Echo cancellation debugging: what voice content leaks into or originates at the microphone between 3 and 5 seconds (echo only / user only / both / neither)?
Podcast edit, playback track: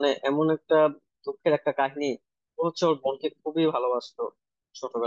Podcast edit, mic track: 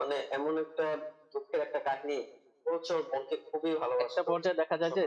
both